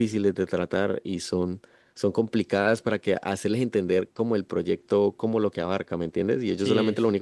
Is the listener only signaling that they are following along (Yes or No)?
Yes